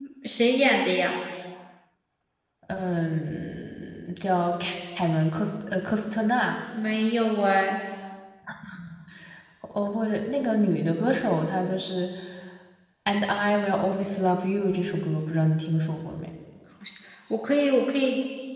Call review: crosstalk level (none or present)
none